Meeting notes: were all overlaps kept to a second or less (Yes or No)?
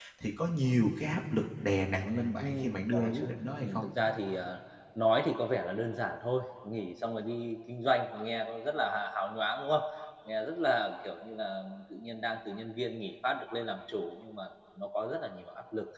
No